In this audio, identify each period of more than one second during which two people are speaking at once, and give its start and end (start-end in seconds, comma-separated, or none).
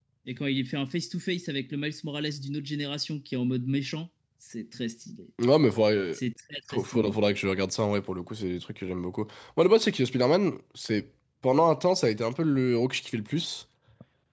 none